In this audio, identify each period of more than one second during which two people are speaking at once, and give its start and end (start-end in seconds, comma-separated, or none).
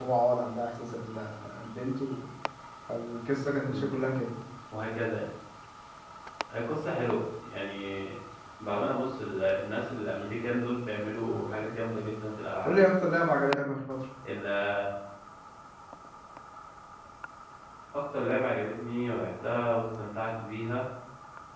none